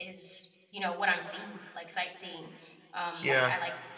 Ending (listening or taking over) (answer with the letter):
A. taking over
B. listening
B